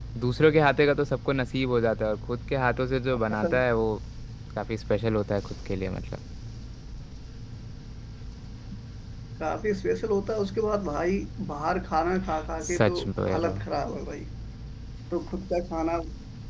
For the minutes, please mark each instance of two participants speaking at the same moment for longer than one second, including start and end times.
none

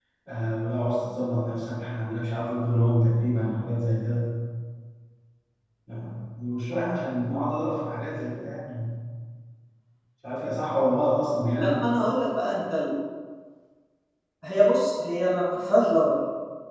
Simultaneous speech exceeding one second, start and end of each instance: none

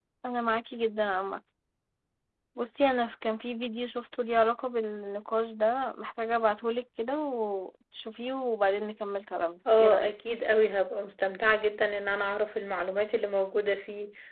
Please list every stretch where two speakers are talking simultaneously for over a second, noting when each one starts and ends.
none

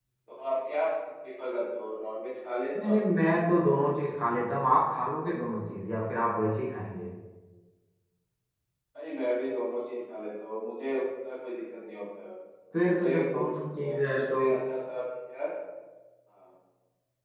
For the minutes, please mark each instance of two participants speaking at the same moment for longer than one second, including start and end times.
12.8-14.4

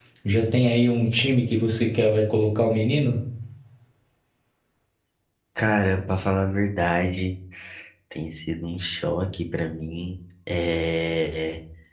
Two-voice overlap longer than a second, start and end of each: none

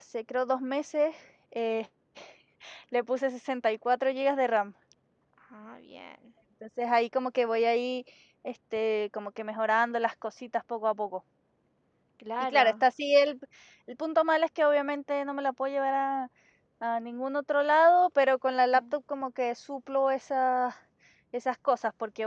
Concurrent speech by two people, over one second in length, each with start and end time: none

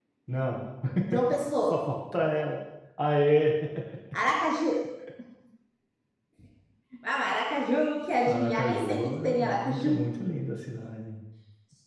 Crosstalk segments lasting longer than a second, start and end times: 8.3-10.0

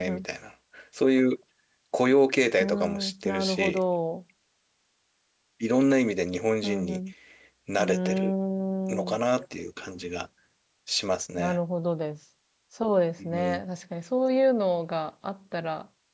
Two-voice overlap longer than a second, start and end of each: 2.6-3.8

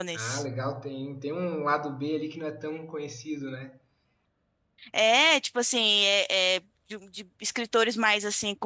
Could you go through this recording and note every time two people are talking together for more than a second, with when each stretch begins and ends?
none

